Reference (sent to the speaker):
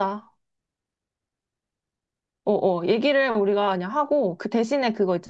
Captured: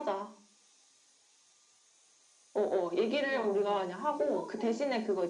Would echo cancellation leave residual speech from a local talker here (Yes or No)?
Yes